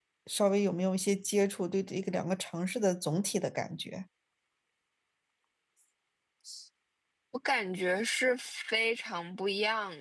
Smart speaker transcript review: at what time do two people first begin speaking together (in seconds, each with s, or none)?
none